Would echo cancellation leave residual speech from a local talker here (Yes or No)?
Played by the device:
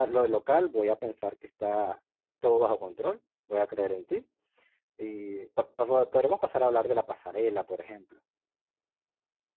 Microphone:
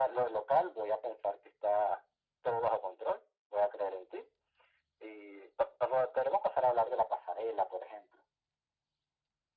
No